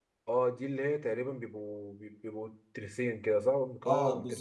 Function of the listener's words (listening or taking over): taking over